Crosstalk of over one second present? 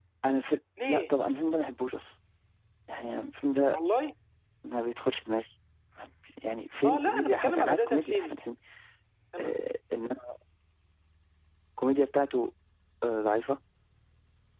Yes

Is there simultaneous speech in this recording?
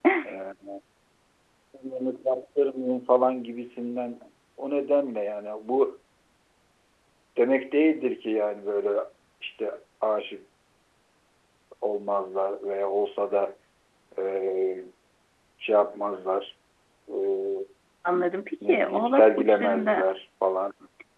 Yes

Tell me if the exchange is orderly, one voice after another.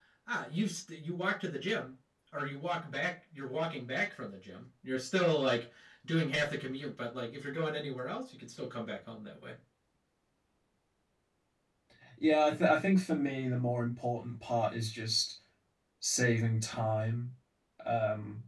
Yes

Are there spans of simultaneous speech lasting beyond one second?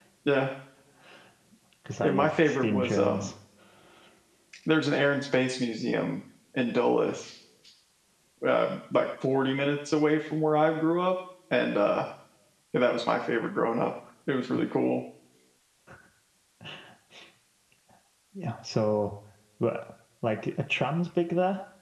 Yes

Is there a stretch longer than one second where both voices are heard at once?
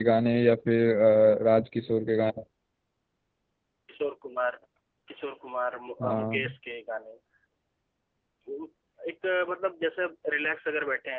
No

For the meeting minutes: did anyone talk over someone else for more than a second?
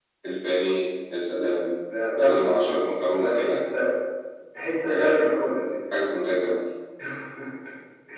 No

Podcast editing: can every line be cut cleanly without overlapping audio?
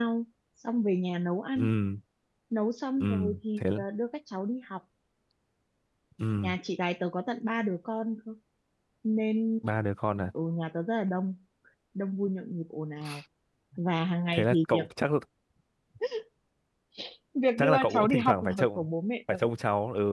No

